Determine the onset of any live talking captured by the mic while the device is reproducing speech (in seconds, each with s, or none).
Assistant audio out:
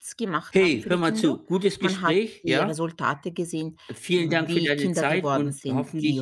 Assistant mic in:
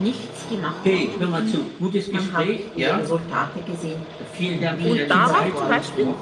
4.8 s